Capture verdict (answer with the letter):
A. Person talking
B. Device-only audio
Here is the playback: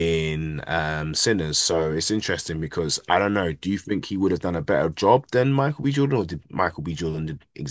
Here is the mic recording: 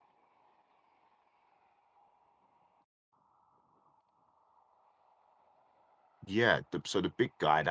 A